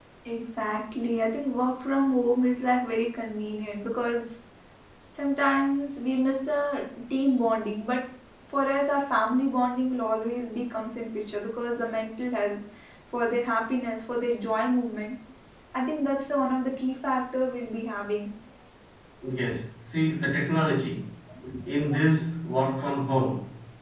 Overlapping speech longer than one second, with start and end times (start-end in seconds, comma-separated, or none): none